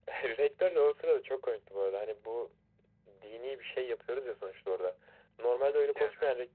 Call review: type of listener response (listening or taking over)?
listening